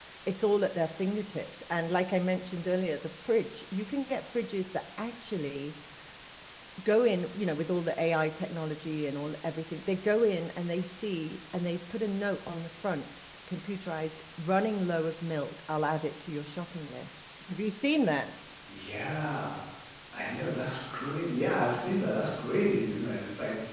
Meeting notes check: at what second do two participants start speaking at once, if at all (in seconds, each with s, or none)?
none